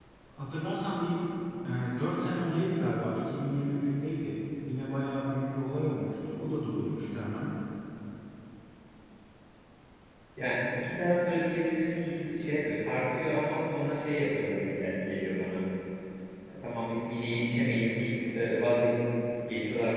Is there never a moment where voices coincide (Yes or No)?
Yes